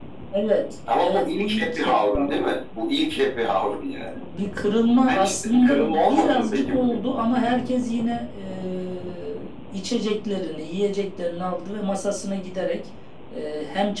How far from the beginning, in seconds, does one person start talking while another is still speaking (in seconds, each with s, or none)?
1.0 s